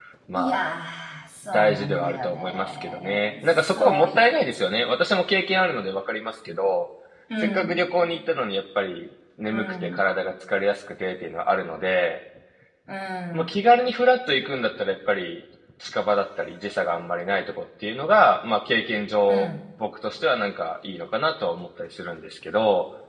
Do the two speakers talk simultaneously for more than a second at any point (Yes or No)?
Yes